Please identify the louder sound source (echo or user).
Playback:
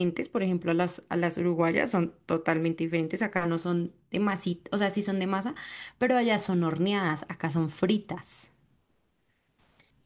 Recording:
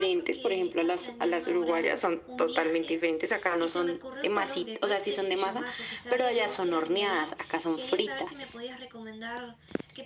echo